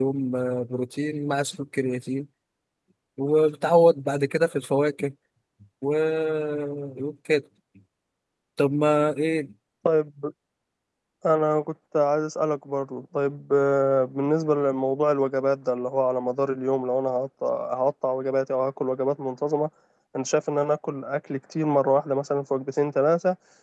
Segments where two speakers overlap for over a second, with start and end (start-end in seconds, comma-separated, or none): none